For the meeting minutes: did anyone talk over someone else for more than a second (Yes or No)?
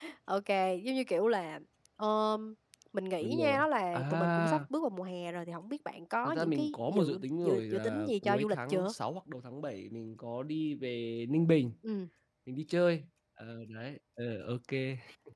Yes